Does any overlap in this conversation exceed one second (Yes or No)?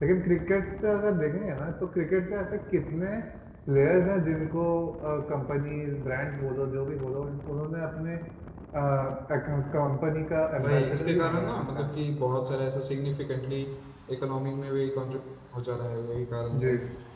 Yes